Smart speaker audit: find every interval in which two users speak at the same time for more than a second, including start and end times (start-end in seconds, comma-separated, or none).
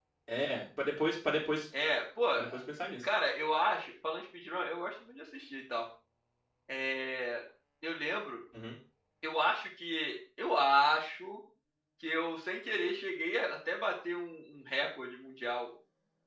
none